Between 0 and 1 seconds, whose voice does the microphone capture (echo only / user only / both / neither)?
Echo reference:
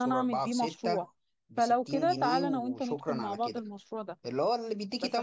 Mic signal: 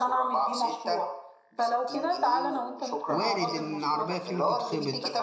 echo only